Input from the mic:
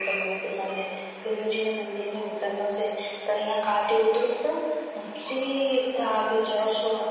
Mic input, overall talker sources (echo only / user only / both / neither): echo only